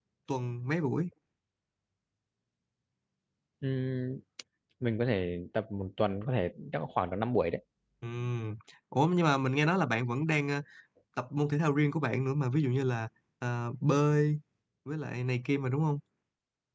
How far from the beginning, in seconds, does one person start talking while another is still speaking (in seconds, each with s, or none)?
none